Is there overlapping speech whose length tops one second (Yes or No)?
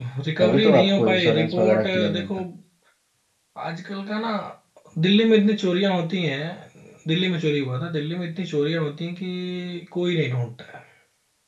Yes